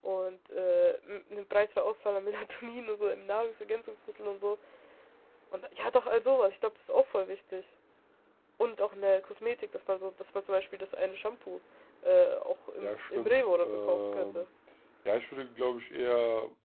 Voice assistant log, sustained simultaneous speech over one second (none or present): present